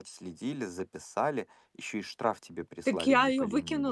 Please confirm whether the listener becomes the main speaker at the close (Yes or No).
Yes